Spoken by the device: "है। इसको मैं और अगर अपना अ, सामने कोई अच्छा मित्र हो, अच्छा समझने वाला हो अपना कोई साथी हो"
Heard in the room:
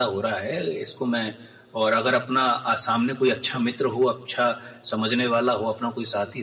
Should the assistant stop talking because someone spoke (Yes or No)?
No